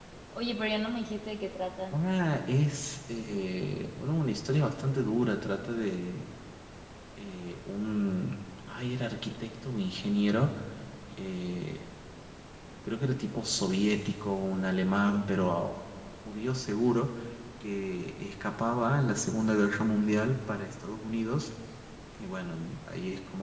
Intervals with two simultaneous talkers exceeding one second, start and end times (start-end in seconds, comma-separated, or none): none